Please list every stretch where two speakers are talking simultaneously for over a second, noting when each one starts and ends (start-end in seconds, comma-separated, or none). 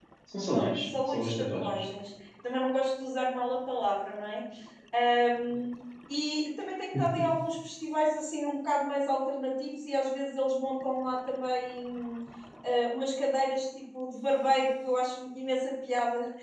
0.5-1.8